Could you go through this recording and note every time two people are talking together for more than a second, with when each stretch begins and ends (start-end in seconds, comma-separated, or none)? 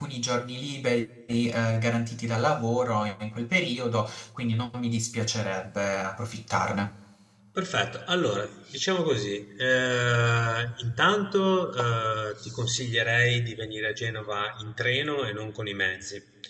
none